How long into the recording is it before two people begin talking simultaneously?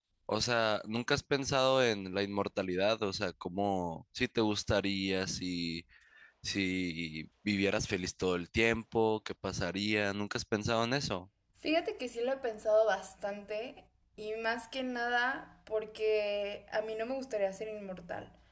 none

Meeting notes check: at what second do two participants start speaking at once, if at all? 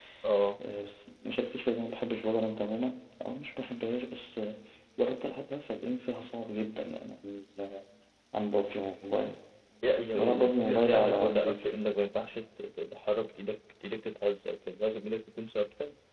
10 s

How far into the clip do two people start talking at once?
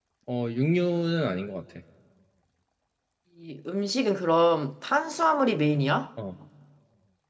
none

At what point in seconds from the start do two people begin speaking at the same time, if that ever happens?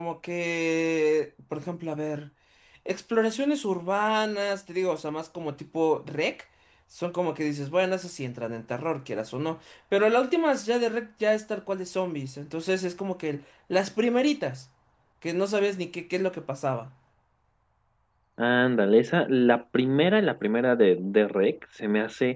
none

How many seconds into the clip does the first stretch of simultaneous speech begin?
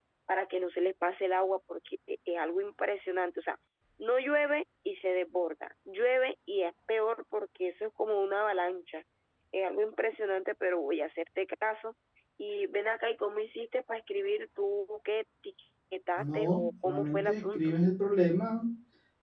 16 s

